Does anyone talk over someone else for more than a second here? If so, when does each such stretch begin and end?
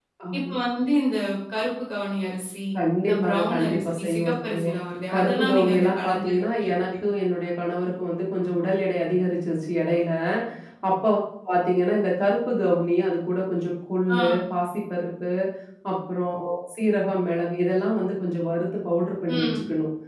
3.0-4.7, 5.1-6.7

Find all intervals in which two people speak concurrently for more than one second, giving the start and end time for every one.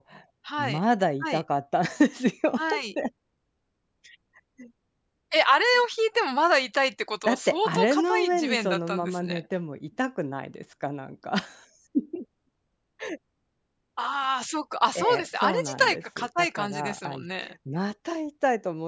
7.2-9.4, 14.9-17.2

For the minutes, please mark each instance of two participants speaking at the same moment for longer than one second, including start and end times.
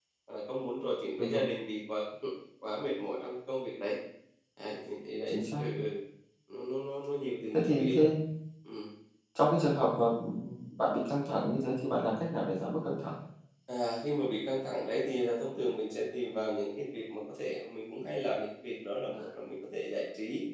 none

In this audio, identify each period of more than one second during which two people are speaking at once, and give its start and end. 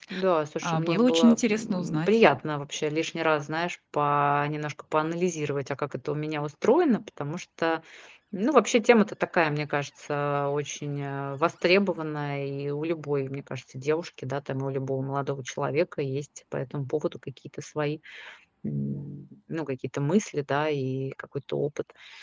0.6-2.1

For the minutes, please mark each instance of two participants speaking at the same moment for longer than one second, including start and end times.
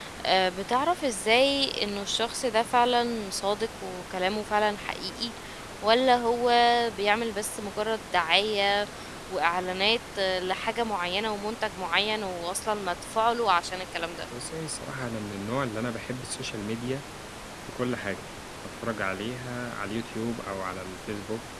none

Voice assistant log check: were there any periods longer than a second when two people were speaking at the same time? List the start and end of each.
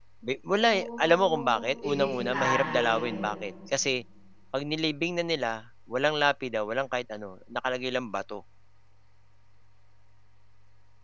0.6-3.3

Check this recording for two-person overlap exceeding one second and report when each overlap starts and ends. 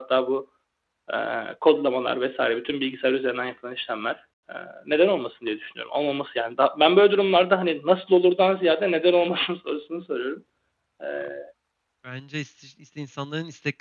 none

